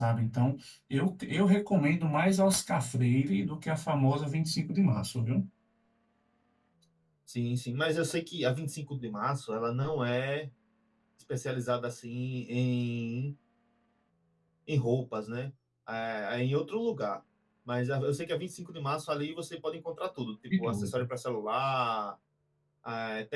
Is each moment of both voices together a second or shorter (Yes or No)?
Yes